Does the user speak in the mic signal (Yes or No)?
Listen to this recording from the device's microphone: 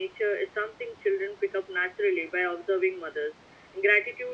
No